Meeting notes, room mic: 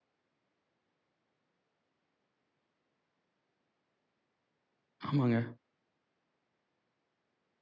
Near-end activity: present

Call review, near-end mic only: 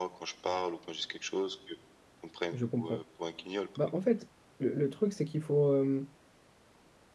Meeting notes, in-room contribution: present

